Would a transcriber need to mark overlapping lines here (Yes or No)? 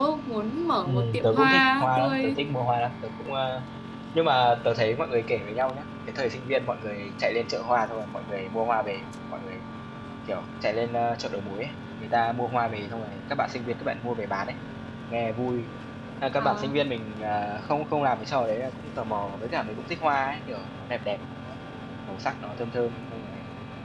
Yes